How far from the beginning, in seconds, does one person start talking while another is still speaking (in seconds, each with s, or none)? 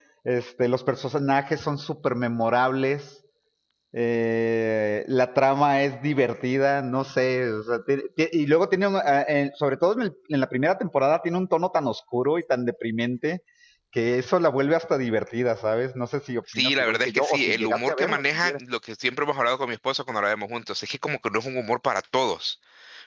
16.5 s